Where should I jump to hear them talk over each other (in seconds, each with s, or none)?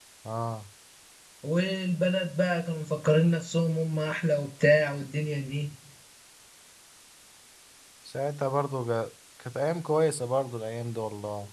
none